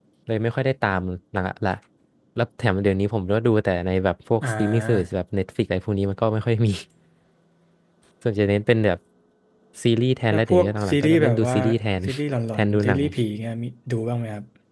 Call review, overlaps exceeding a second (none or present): present